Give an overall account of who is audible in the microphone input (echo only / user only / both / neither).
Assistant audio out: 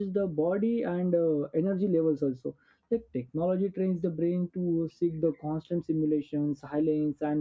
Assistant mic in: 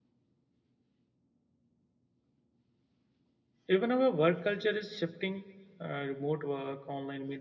user only